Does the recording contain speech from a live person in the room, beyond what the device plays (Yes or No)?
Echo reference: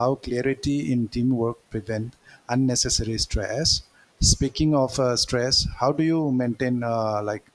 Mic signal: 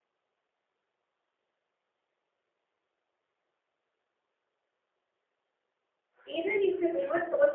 Yes